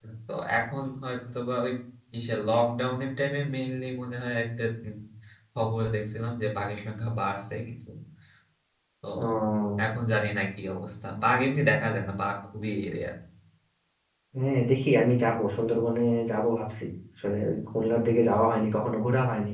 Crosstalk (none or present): none